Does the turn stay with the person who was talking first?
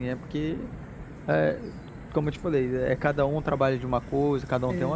Yes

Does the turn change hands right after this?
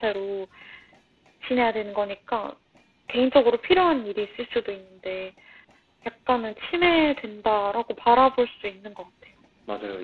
Yes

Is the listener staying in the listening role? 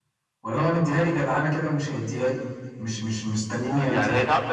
No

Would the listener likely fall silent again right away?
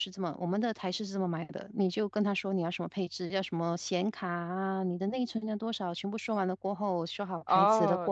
No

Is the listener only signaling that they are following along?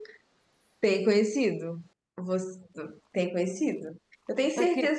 Yes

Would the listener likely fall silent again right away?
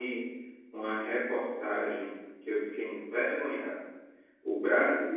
Yes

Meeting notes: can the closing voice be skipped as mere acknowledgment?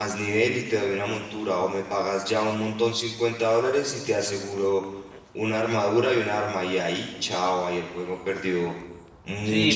No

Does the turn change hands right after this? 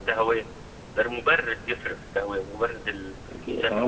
Yes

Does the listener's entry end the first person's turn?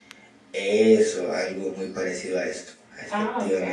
Yes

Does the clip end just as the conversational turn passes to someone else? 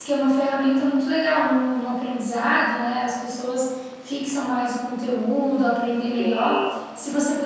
No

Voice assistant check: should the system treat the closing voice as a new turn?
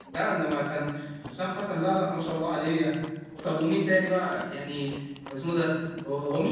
No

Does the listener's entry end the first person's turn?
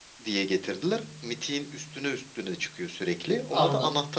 Yes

